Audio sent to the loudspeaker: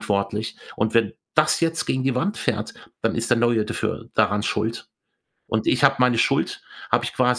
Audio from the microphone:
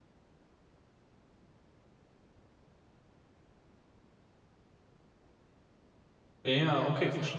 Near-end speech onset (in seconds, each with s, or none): 6.4 s